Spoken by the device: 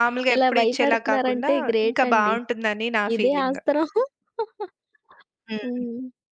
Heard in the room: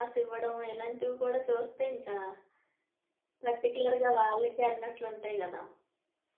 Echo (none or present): none